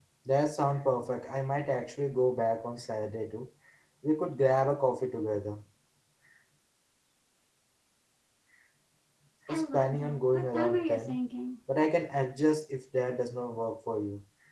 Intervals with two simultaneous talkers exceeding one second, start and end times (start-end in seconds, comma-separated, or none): 9.5-11.2